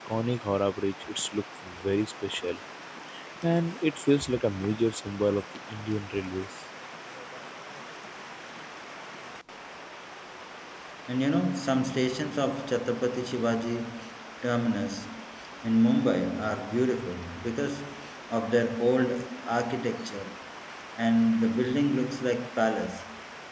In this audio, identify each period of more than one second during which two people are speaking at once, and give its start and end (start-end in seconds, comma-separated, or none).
none